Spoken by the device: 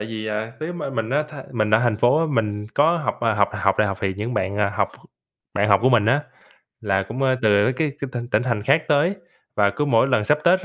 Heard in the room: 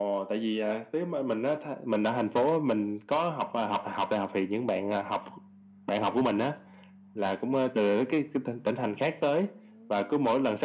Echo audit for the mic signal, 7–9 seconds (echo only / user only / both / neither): echo only